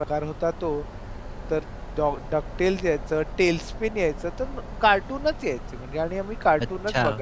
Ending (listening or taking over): listening